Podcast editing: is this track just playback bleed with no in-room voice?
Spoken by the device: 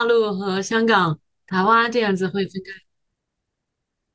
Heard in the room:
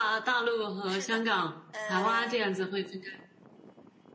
No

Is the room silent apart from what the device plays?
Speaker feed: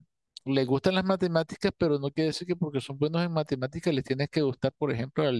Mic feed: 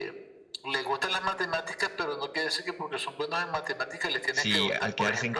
No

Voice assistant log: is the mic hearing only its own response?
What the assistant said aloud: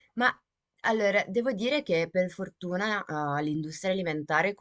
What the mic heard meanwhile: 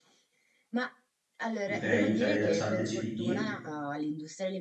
No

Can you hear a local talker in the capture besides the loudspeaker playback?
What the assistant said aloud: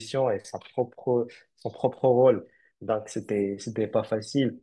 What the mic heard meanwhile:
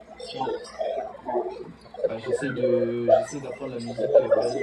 Yes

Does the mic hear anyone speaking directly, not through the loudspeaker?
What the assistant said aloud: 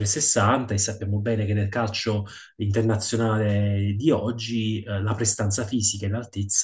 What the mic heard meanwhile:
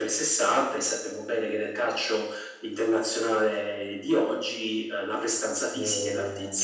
Yes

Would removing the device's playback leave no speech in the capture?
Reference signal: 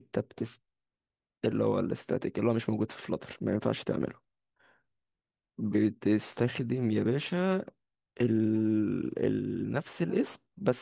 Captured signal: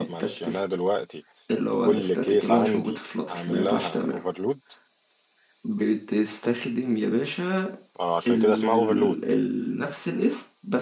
No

